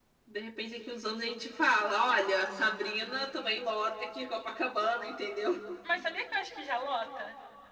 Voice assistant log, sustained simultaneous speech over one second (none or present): none